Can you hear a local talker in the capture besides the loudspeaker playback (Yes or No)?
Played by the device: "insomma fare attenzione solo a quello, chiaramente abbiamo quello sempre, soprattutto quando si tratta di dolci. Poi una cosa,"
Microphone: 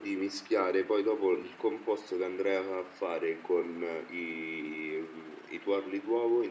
Yes